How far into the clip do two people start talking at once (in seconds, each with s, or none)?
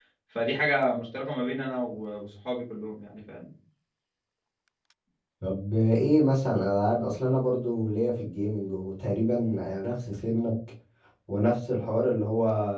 none